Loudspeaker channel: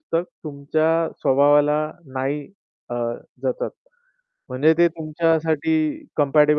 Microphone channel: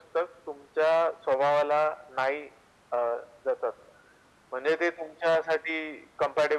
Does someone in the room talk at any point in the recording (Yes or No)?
No